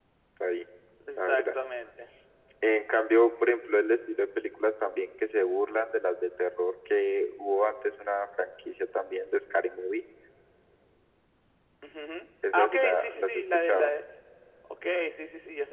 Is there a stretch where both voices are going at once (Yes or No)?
Yes